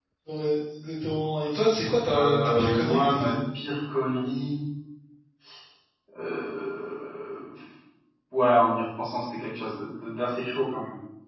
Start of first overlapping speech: 2.1 s

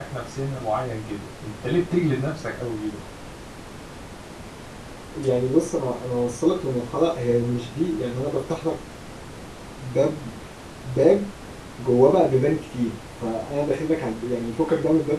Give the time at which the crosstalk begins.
none

